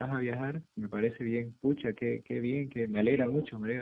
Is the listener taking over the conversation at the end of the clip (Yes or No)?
Yes